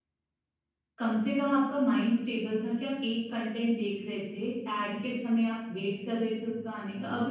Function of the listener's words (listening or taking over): listening